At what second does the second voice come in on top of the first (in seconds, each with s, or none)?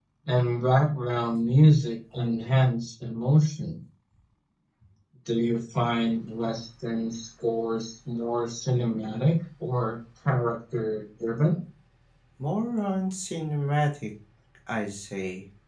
none